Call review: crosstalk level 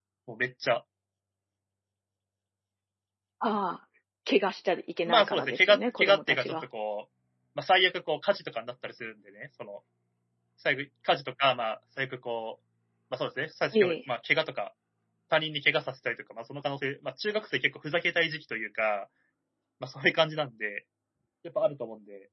present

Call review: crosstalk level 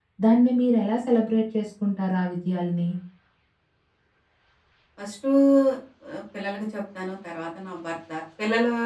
none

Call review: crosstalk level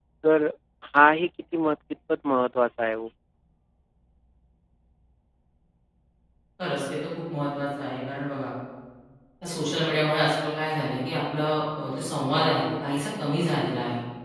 none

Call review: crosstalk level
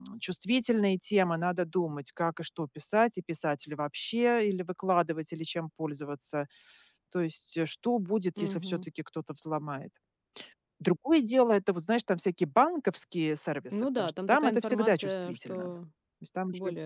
present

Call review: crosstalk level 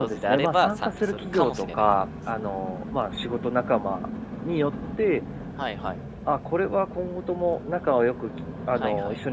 present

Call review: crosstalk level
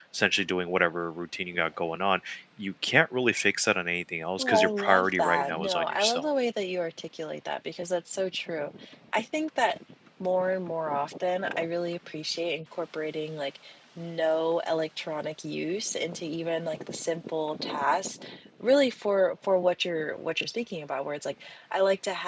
present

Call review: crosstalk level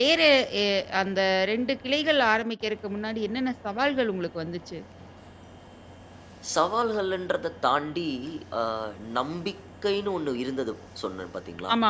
none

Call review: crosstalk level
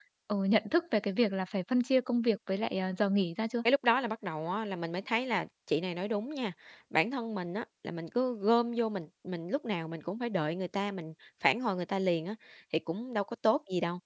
none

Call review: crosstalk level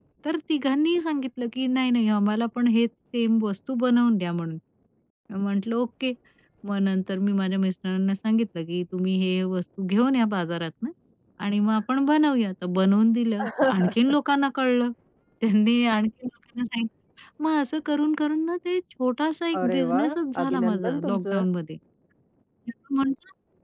present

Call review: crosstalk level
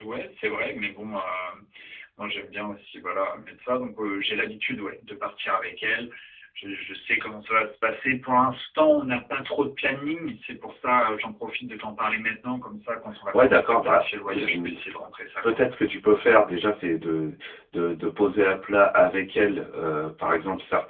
present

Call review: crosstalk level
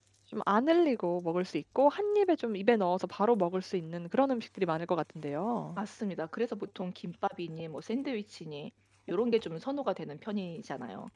none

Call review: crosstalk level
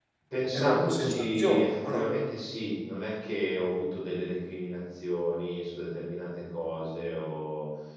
present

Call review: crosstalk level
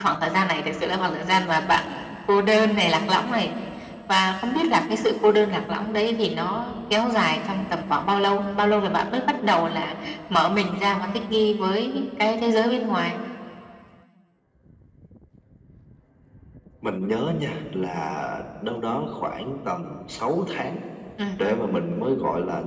none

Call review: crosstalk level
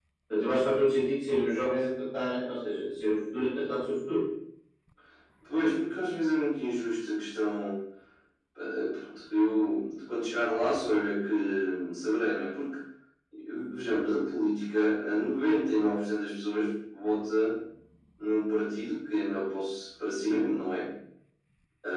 none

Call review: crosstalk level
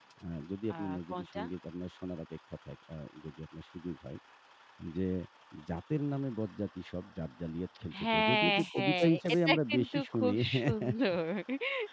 present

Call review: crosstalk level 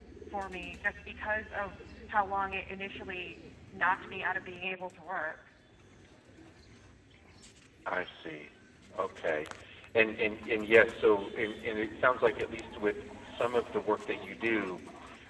none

